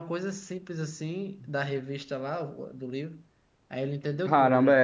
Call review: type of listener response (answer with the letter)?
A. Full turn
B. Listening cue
A